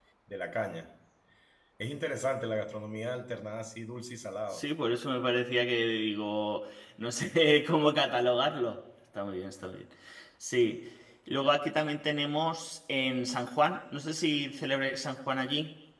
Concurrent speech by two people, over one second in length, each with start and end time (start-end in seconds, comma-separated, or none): none